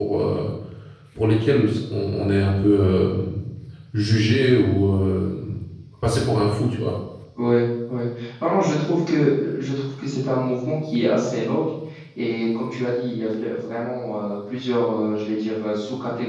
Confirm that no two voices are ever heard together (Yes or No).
Yes